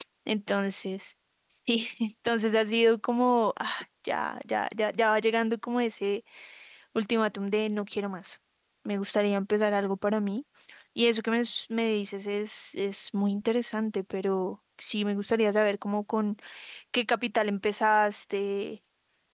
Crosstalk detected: No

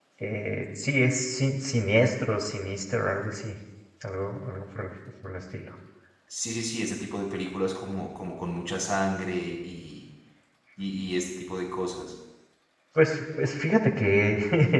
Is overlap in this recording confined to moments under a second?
Yes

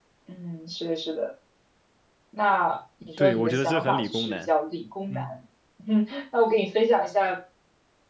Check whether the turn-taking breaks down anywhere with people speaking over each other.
Yes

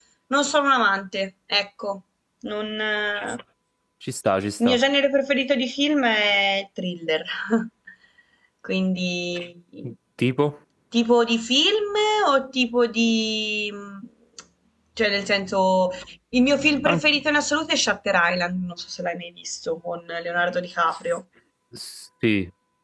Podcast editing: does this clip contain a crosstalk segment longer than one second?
No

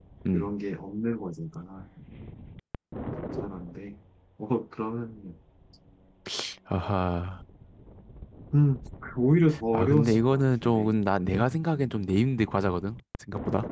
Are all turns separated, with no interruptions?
No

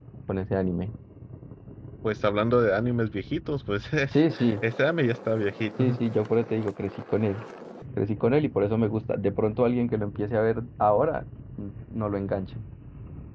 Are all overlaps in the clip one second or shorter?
Yes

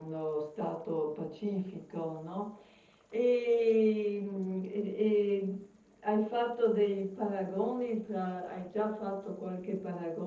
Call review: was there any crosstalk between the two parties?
No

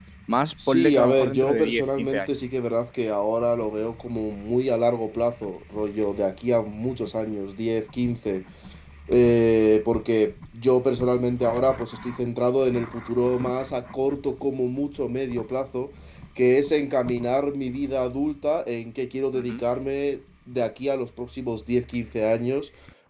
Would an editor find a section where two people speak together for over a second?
Yes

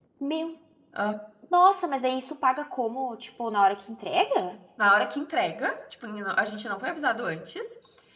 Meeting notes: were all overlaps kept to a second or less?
Yes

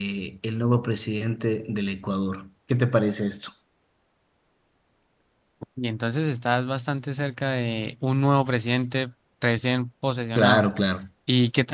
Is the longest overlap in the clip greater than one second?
No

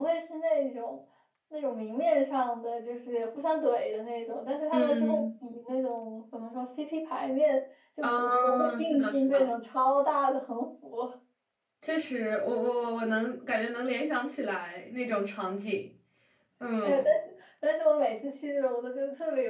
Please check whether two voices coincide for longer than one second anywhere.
Yes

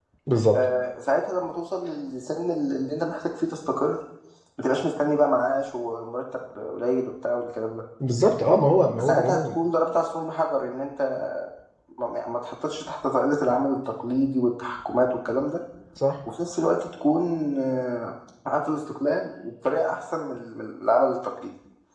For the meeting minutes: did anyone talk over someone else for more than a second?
No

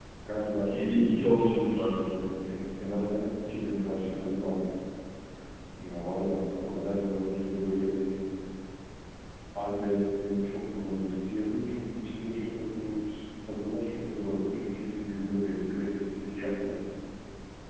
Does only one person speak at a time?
No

